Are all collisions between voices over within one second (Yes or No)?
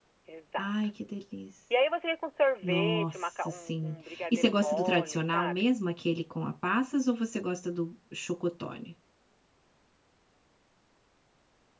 No